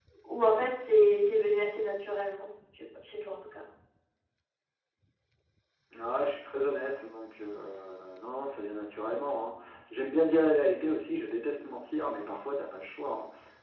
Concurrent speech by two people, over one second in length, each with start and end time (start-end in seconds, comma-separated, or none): none